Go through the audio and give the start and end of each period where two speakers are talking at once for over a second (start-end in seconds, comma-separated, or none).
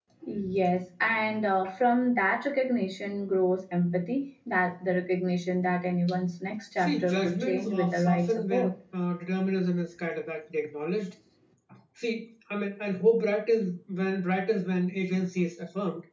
6.8-8.7